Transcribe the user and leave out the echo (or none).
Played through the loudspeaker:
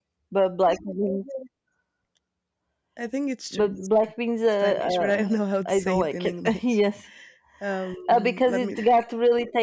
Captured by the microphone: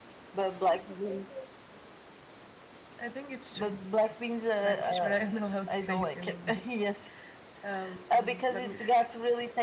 none